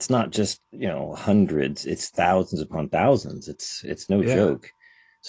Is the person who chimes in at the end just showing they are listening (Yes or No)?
Yes